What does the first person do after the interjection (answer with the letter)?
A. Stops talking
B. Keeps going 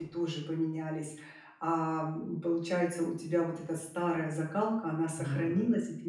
B